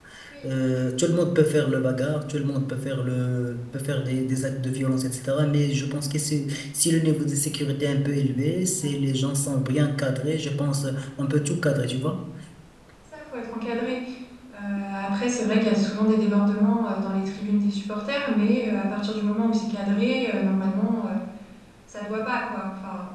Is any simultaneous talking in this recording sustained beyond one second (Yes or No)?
No